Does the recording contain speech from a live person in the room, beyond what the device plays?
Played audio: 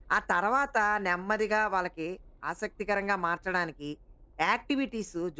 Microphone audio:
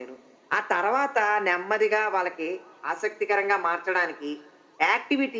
No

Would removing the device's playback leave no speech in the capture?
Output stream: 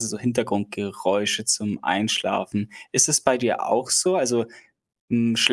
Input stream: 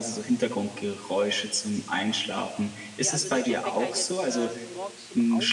No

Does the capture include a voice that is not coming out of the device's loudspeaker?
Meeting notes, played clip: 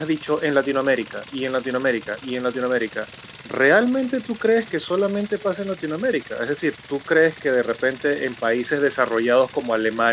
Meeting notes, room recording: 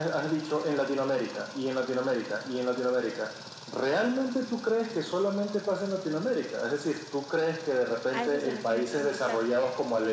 Yes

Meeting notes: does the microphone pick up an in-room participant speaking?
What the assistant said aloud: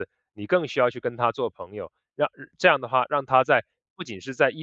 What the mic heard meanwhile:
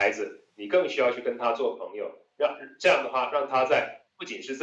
No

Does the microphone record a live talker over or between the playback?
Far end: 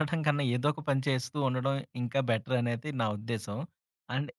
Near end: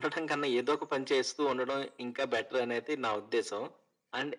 No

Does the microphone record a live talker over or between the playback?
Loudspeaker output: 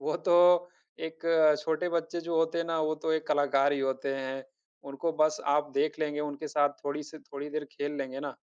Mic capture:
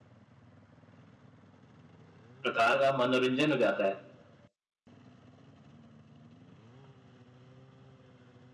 Yes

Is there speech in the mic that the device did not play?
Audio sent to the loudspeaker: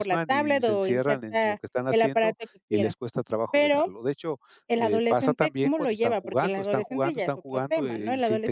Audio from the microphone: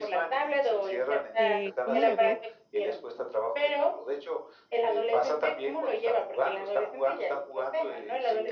Yes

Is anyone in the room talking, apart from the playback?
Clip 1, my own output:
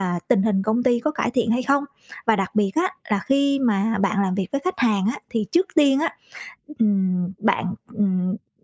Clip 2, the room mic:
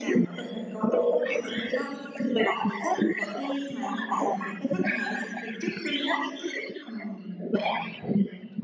No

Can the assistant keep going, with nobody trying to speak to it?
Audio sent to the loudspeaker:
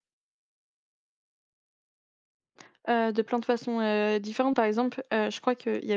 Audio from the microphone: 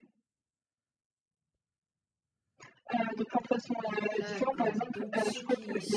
No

